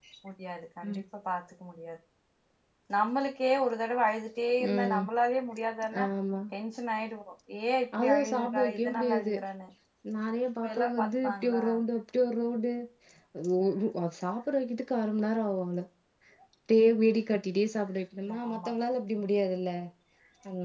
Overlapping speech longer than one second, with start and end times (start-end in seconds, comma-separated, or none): 8.0-9.3